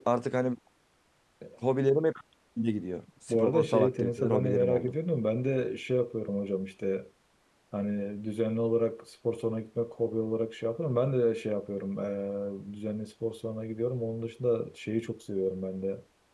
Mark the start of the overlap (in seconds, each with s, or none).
3.3 s